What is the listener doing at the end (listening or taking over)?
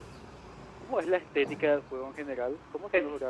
taking over